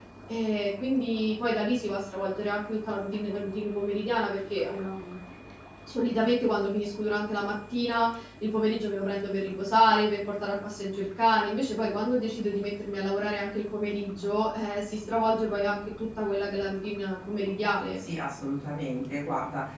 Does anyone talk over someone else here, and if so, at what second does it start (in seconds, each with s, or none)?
none